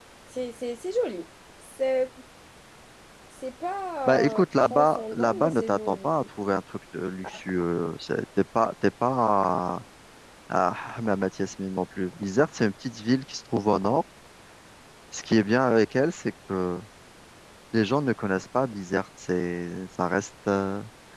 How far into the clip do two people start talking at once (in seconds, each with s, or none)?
4.1 s